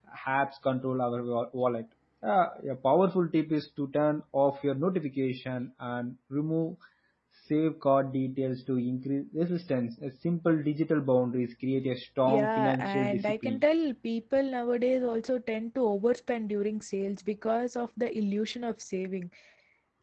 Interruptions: present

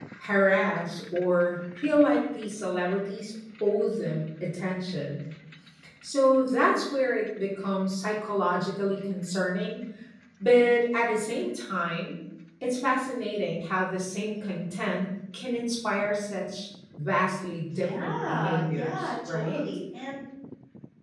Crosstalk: present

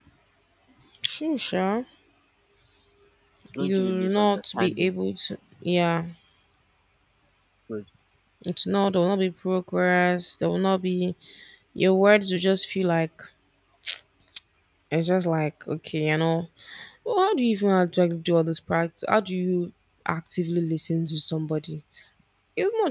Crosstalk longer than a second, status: present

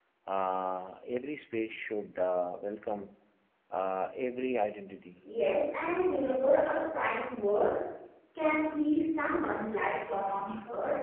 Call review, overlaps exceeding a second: none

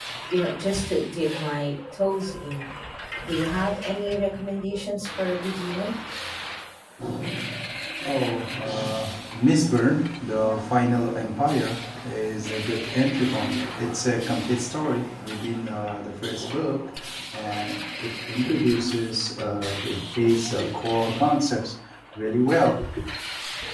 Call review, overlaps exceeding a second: none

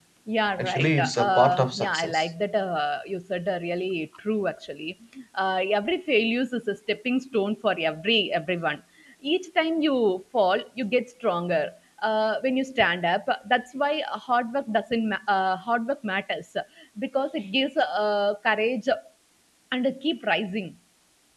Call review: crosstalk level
present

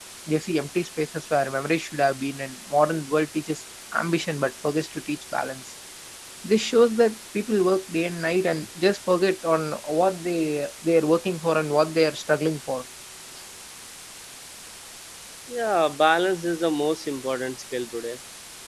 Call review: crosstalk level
none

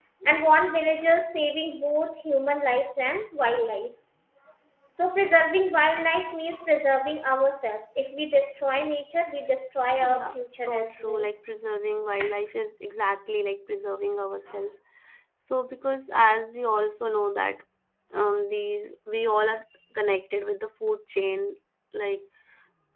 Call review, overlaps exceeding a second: present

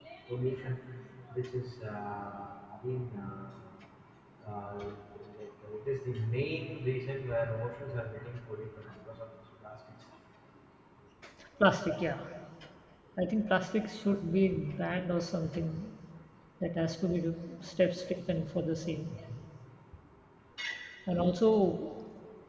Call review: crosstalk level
none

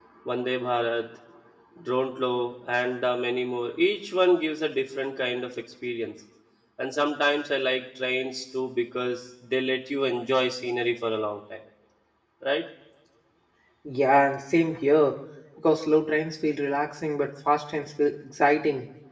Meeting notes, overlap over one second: none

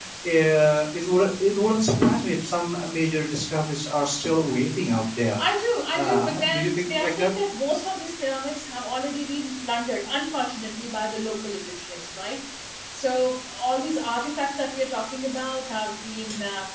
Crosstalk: present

